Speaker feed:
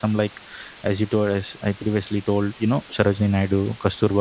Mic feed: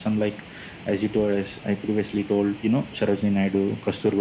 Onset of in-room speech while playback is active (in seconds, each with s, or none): none